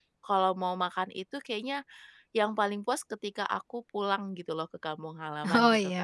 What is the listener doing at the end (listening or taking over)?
taking over